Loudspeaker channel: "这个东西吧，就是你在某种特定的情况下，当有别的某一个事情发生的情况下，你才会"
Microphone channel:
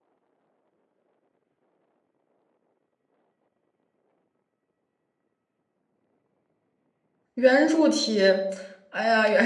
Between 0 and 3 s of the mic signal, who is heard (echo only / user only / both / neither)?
neither